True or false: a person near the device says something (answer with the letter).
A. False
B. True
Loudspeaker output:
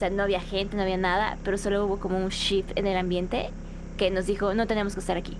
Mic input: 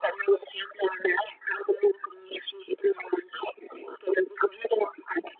A